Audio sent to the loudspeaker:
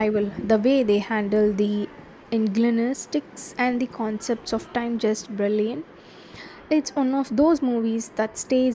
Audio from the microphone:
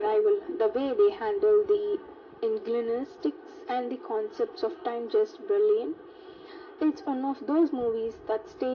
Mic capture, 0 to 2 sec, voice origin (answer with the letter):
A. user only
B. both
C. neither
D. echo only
D